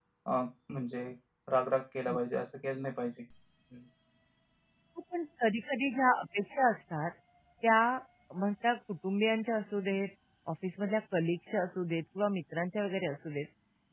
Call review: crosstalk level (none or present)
none